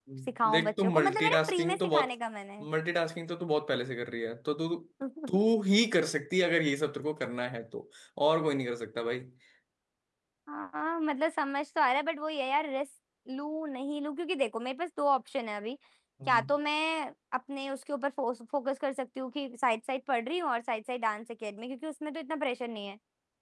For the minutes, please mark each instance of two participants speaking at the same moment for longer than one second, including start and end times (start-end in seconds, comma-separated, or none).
0.5-2.1